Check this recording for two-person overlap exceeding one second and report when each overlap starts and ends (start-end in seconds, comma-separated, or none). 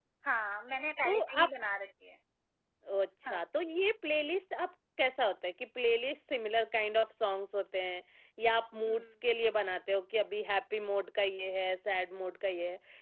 none